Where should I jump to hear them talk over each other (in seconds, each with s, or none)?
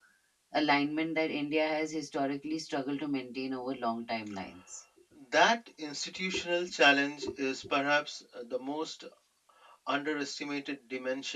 none